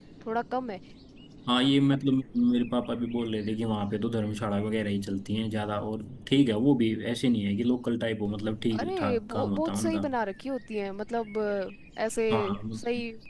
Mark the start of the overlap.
8.7 s

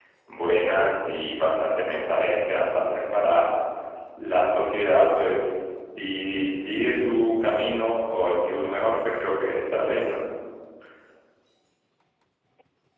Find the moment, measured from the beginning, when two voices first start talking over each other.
none

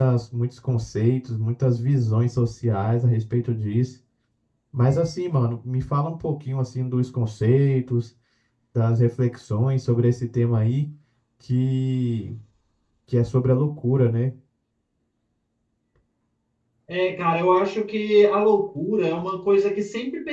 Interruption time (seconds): none

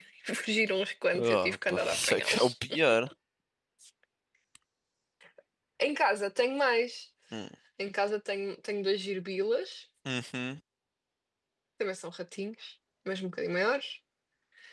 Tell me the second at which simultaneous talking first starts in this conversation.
1.1 s

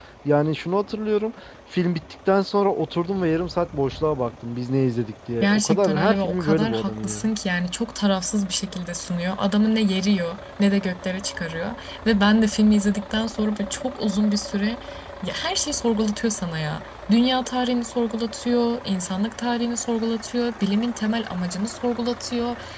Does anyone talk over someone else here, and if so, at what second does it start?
5.4 s

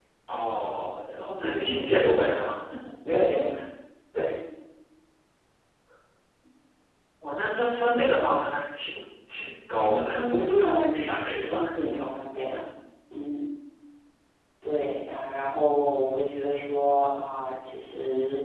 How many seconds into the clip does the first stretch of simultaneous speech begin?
1.3 s

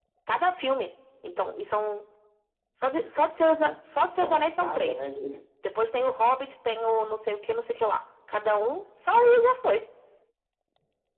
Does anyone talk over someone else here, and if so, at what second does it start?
3.6 s

